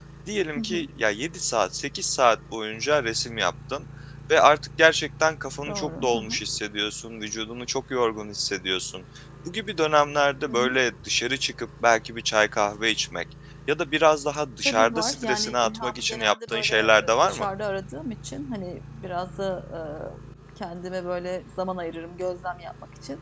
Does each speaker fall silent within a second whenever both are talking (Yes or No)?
No